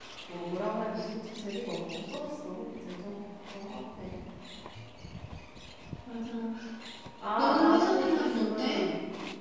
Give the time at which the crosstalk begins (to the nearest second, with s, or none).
7 s